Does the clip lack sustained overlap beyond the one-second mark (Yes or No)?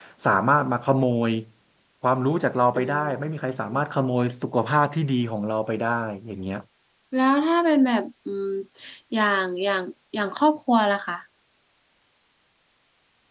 Yes